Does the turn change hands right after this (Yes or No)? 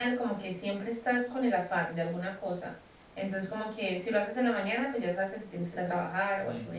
No